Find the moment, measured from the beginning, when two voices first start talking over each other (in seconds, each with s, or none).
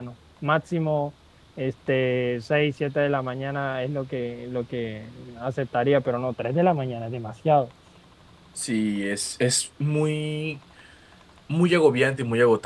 none